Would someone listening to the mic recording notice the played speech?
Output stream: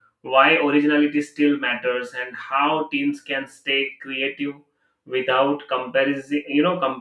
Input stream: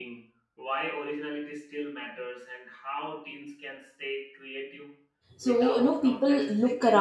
Yes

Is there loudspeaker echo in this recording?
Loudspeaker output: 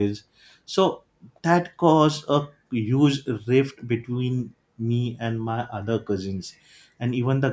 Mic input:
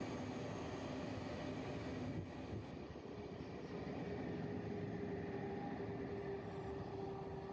No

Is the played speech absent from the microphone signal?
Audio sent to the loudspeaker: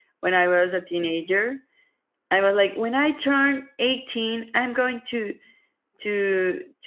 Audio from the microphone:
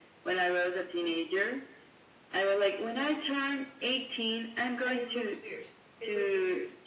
No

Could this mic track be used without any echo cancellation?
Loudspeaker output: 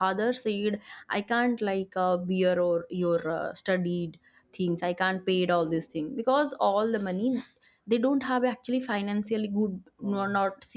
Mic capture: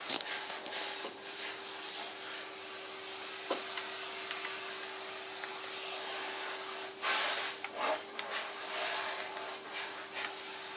Yes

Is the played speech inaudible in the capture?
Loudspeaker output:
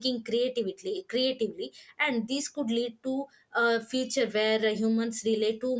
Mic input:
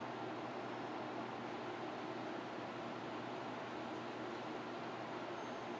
Yes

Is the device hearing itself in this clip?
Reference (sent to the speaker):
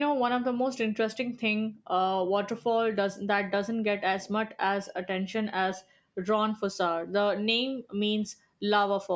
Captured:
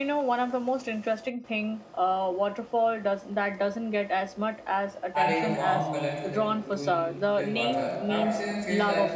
Yes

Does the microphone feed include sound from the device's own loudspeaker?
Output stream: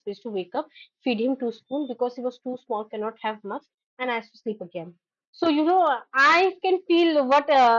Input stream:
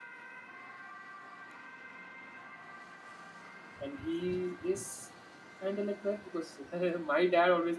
No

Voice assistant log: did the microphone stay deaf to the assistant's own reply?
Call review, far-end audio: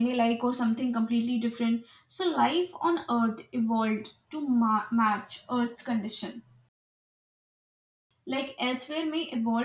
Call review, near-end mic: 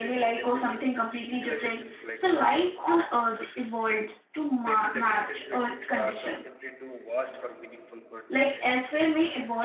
No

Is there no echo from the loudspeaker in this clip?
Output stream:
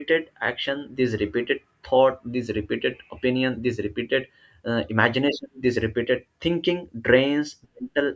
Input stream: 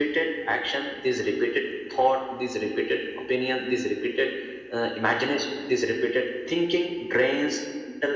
No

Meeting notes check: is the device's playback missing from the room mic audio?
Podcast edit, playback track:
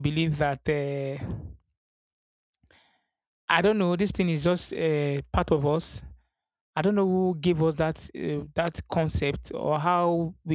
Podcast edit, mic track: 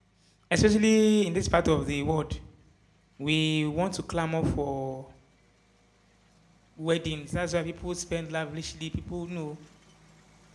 Yes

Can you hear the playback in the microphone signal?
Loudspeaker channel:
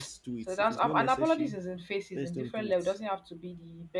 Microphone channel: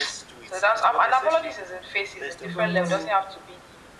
Yes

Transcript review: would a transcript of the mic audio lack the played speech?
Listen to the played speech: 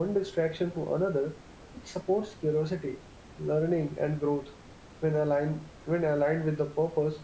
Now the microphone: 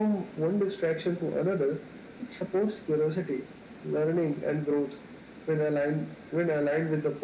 No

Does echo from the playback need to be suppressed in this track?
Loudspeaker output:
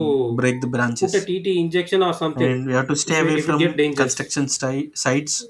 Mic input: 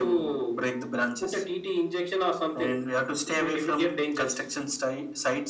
Yes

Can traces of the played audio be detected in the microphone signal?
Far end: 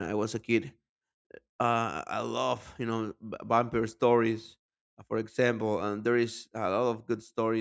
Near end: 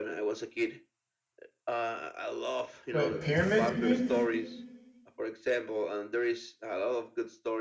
Yes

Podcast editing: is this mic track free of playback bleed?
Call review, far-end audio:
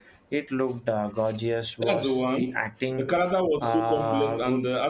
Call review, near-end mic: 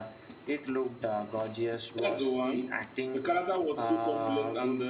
No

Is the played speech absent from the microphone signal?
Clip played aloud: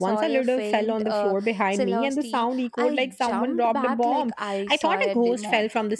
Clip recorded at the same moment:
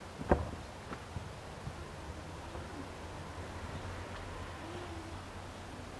Yes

